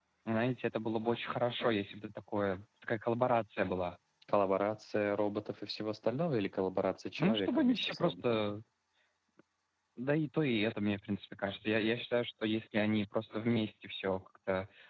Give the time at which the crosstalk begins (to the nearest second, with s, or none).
7 s